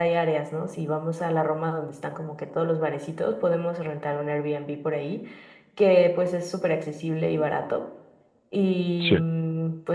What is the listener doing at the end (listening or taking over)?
listening